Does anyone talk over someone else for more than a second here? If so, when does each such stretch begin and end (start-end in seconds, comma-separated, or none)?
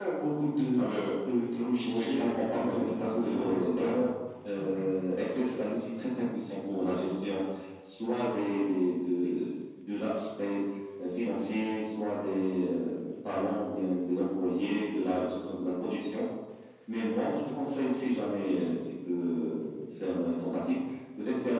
1.9-4.0